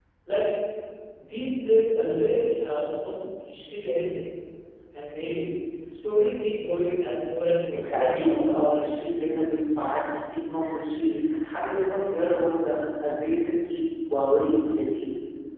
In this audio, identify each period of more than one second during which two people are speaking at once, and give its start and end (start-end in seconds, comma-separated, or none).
7.7-8.9